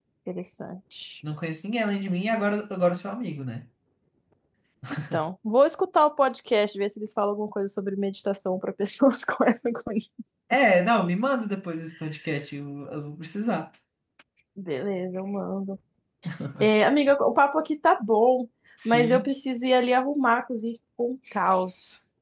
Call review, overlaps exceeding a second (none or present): none